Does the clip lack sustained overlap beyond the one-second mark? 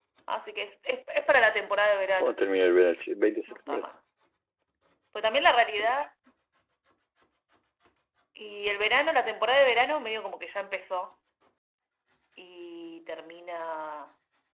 Yes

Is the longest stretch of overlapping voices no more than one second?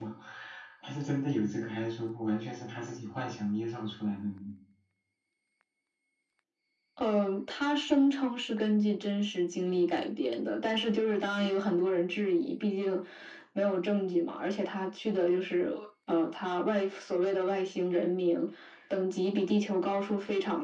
Yes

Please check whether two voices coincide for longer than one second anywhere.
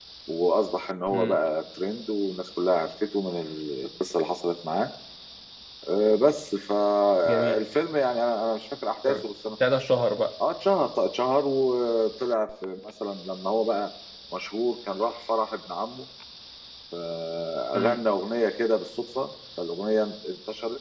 No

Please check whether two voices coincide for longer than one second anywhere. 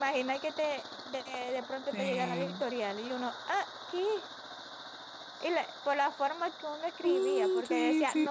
Yes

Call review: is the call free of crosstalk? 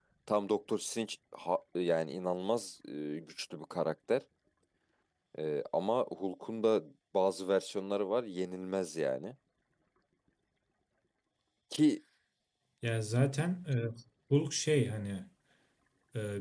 Yes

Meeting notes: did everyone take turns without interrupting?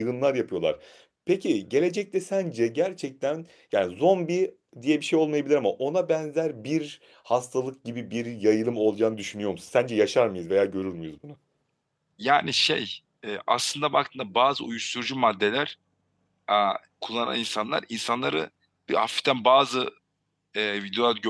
Yes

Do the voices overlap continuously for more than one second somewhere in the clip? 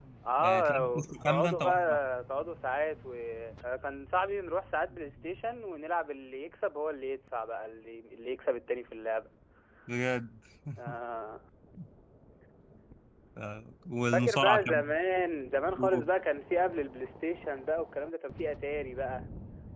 Yes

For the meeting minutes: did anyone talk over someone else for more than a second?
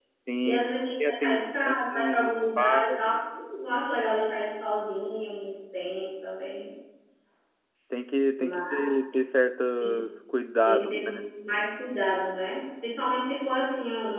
Yes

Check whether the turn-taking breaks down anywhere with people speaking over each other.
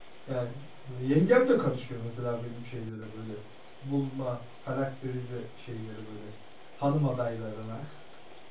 No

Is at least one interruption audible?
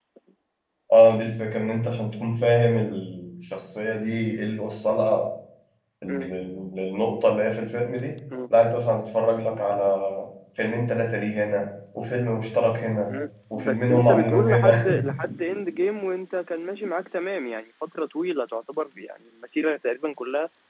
Yes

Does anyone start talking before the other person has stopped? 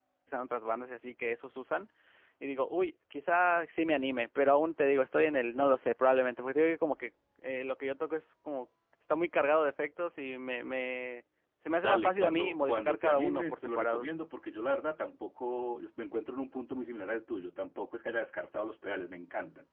Yes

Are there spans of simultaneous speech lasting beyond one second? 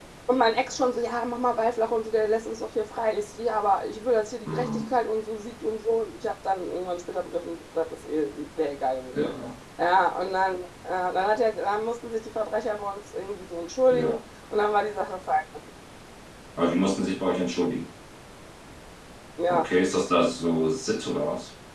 No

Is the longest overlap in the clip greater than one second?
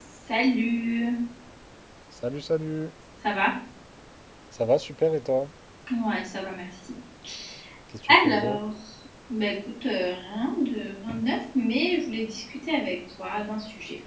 No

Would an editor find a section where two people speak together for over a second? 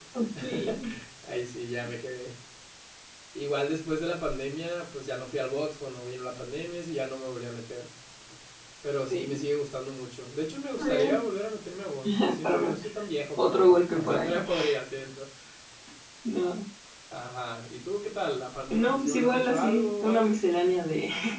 Yes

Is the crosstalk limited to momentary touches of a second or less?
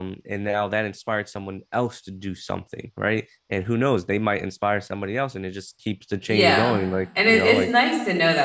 Yes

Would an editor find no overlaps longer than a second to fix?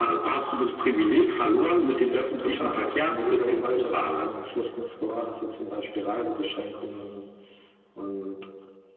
No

